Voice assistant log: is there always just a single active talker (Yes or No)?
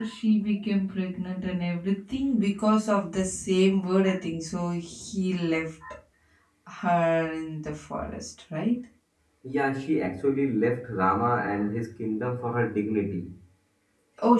Yes